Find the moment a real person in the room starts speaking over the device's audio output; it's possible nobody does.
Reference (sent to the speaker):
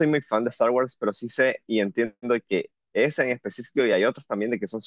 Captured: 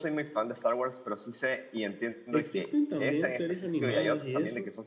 2.3 s

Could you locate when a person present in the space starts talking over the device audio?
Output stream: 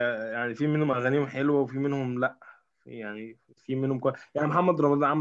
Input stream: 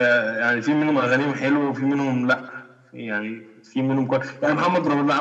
none

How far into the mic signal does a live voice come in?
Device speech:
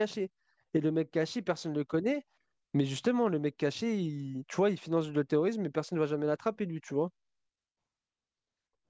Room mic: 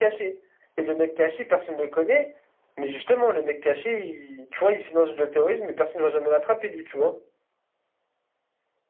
none

